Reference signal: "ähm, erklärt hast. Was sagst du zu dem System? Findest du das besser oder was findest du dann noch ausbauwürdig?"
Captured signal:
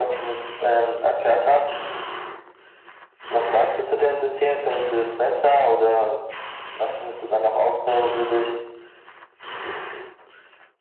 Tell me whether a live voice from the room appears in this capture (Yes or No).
No